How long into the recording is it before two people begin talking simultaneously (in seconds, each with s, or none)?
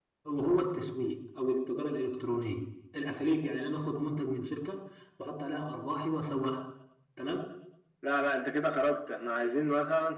none